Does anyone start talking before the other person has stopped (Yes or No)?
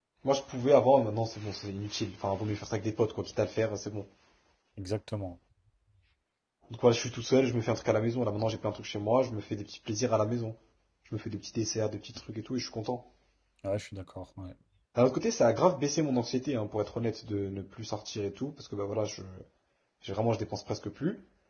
No